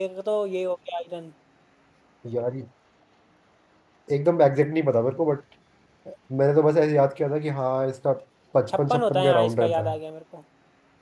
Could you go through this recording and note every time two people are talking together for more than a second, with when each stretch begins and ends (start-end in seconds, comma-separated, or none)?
8.7-10.0